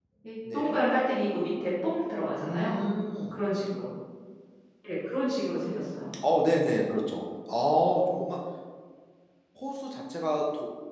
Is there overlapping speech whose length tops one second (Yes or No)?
No